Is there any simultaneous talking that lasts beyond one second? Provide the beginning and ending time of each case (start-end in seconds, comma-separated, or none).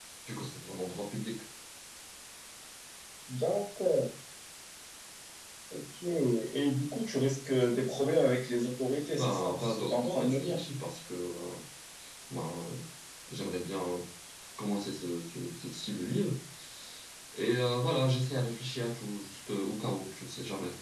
9.2-10.6